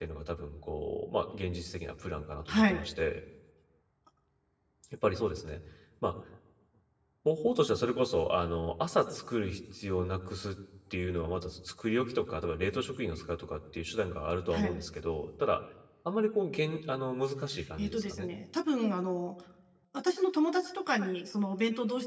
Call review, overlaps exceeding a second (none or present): none